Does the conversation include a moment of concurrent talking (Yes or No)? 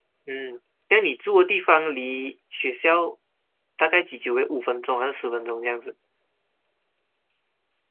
No